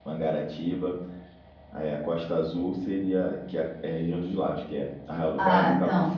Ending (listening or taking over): listening